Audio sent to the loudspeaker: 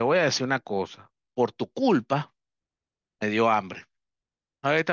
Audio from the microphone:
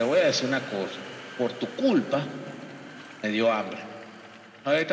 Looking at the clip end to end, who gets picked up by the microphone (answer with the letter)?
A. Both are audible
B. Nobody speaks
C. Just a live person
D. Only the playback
D